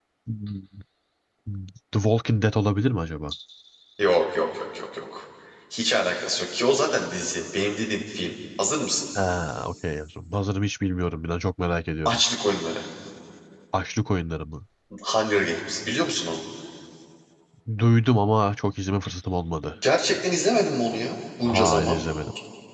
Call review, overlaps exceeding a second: none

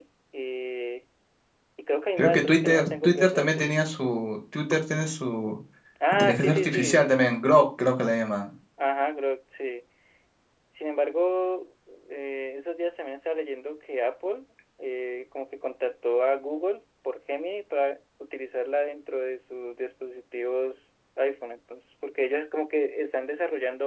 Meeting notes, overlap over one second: present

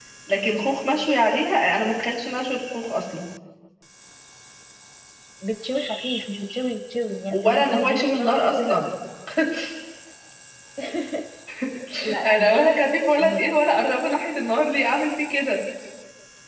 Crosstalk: present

